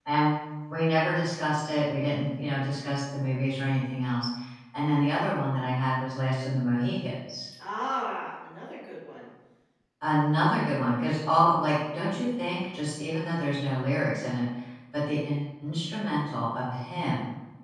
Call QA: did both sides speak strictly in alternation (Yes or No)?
Yes